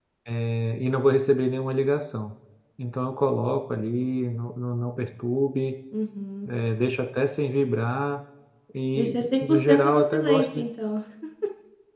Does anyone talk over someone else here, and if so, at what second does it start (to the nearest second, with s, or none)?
9 s